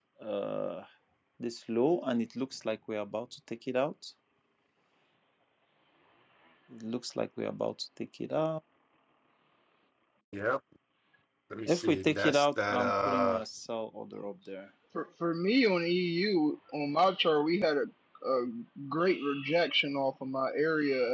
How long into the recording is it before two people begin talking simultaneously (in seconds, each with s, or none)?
11.7 s